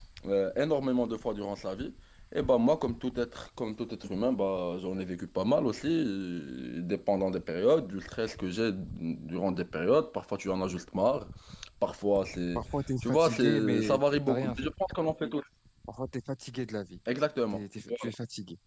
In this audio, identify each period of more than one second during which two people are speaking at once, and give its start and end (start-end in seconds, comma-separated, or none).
13.0-14.7